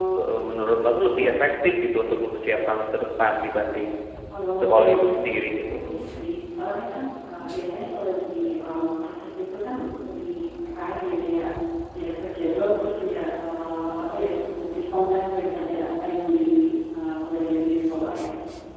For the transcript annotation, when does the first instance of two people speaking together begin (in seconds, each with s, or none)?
4.6 s